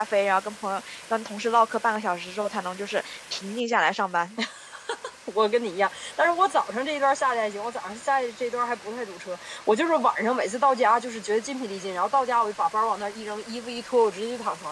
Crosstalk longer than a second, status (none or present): none